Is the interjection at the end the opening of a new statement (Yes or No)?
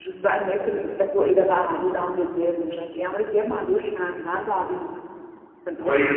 Yes